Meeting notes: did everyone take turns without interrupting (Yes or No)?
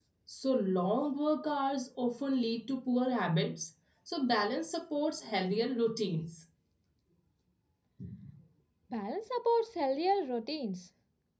Yes